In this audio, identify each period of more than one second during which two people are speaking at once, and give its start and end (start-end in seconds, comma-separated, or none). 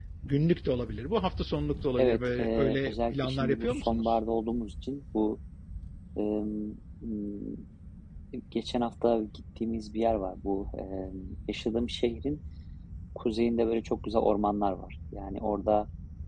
2.0-4.1